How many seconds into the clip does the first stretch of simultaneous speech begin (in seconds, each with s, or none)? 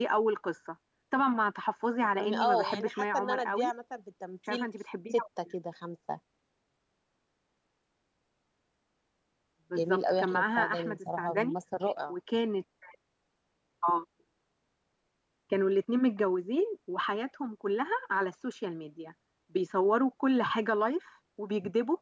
2.2 s